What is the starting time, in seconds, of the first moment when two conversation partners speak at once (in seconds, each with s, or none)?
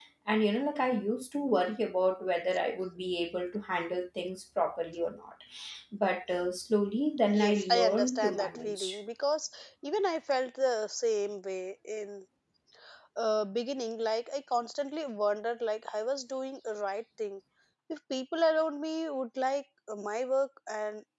7.3 s